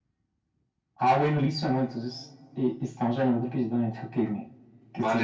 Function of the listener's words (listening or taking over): taking over